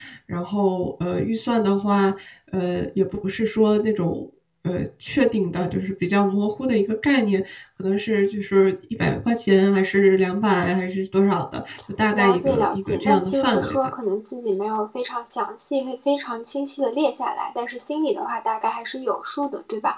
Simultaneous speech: Yes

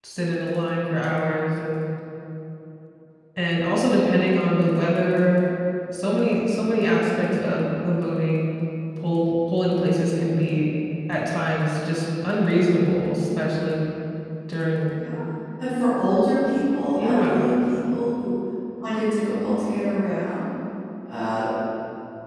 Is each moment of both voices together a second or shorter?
Yes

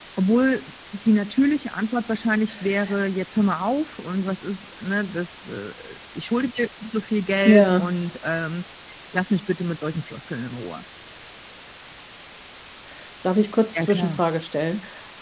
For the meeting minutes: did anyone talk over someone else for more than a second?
No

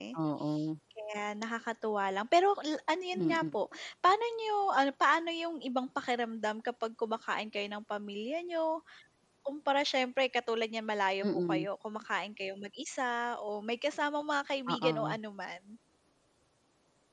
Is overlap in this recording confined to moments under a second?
Yes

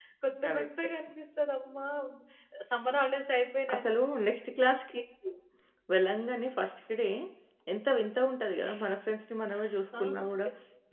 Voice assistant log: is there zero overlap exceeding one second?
Yes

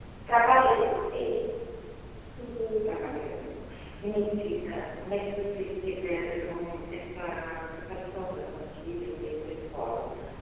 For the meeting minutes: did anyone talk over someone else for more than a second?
No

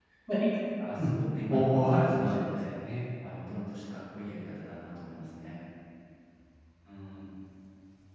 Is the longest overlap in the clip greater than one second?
Yes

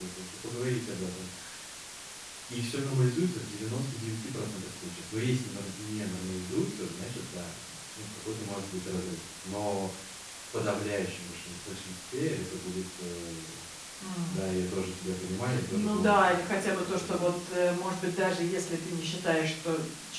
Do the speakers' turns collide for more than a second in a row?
Yes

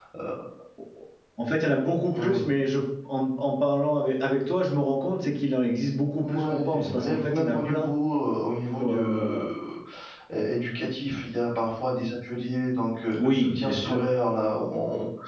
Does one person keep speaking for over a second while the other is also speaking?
Yes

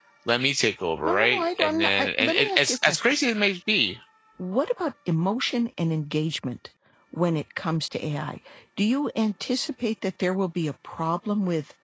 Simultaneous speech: Yes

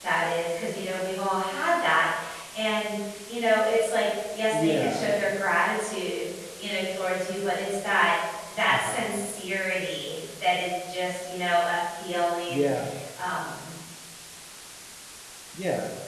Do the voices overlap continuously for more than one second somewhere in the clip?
No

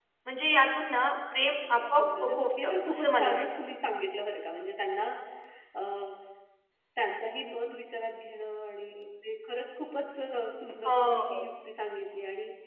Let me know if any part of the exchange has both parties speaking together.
Yes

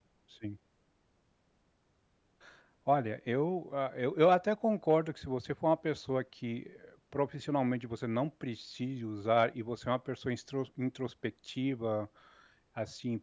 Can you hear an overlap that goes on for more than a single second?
No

